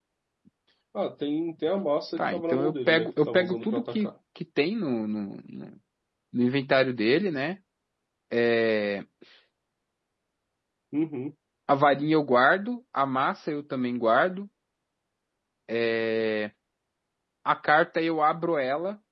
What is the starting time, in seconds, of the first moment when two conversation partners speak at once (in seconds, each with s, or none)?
2.2 s